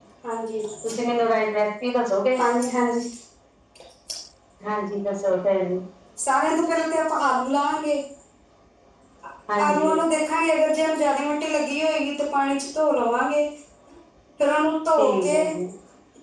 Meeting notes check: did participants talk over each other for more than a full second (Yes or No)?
No